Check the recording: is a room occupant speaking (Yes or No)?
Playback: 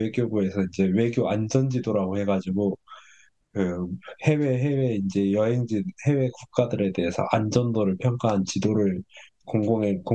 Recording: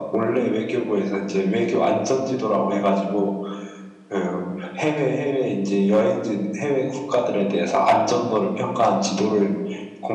No